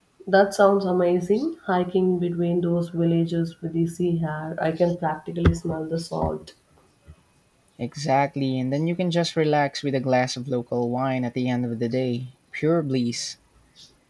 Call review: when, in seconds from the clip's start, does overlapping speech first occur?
none

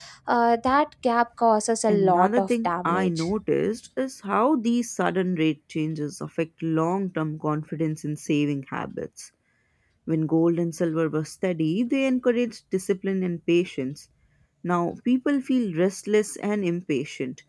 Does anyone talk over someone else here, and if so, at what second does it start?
1.9 s

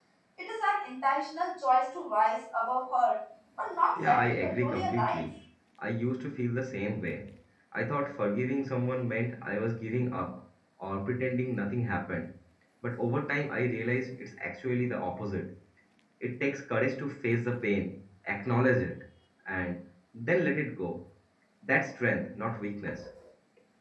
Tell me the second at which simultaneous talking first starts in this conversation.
4.0 s

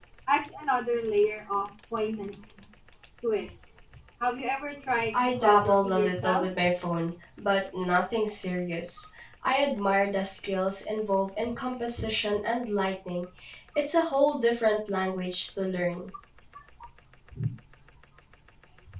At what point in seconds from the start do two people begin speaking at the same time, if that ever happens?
5.1 s

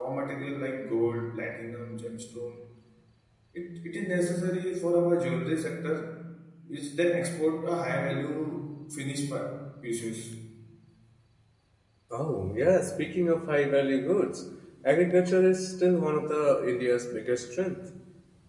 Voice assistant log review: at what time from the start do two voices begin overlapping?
none

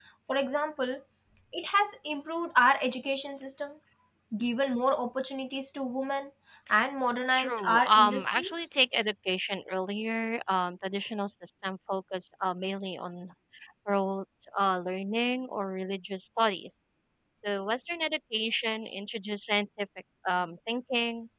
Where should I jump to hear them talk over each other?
7.3 s

